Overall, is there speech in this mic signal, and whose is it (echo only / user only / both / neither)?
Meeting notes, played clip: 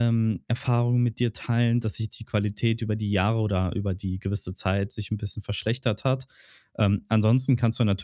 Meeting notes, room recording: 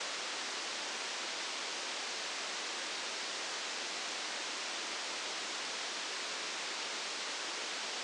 neither